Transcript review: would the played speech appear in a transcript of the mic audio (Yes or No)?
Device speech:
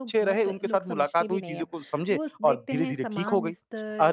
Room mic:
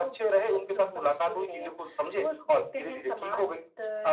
Yes